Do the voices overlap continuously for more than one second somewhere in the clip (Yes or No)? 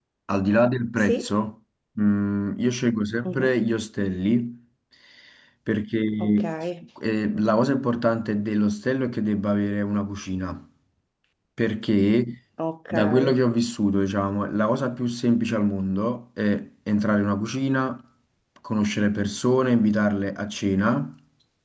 No